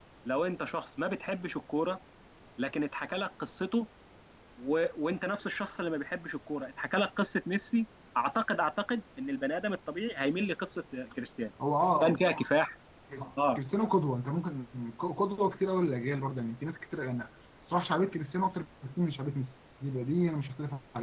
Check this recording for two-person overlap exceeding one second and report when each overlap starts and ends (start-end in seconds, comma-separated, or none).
none